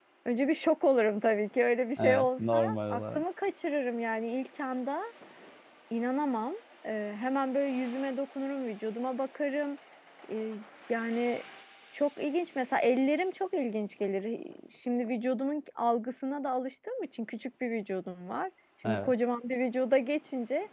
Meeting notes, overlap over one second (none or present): present